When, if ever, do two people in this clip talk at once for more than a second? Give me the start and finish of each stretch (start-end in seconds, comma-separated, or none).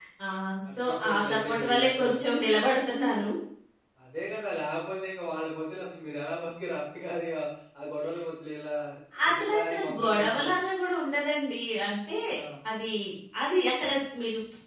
0.8-2.2, 9.3-10.5